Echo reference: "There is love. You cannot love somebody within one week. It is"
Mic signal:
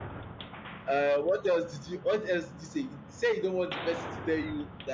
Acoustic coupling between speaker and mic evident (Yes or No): No